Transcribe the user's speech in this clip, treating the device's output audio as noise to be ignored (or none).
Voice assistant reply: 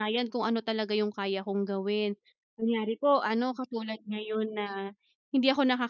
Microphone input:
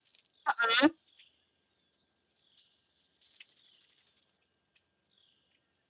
Mm.